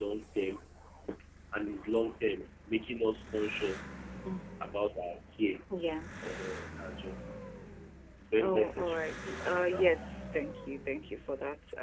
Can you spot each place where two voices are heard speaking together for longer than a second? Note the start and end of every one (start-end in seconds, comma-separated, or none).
8.4-9.8